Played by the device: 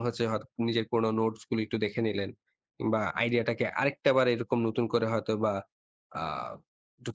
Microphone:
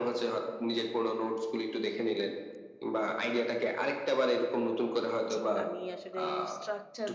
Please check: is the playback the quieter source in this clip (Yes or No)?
No